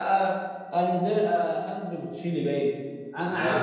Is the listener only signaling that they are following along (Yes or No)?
Yes